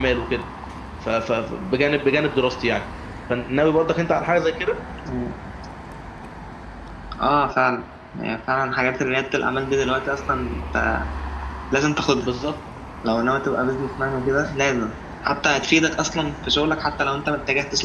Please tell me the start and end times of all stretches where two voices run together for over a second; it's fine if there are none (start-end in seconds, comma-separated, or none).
none